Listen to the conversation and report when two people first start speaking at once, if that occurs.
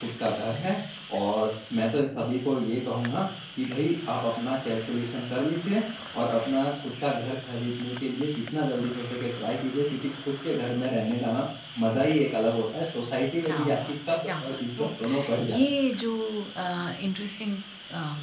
13.4 s

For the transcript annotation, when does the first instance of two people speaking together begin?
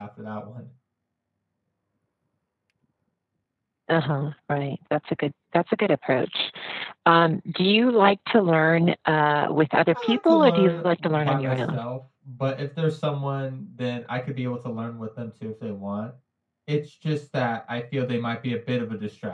9.9 s

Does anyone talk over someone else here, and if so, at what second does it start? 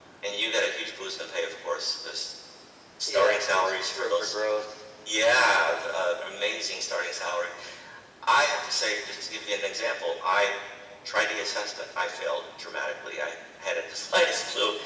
3.1 s

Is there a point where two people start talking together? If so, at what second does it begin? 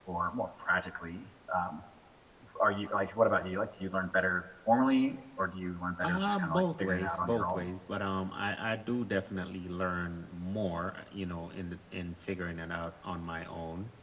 6.0 s

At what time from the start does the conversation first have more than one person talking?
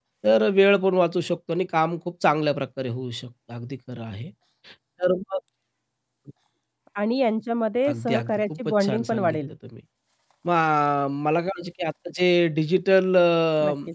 7.9 s

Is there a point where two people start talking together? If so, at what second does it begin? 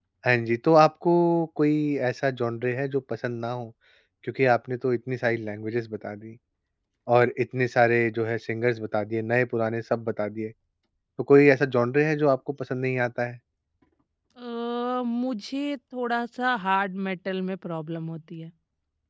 none

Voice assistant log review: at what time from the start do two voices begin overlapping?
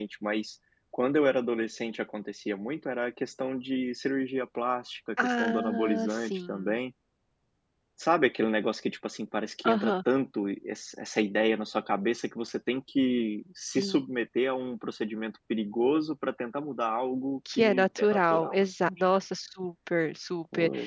5.2 s

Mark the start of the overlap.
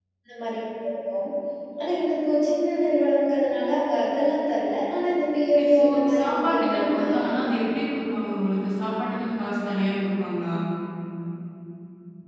5.6 s

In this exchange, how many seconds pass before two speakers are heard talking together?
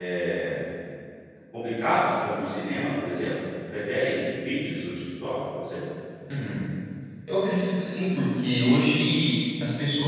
none

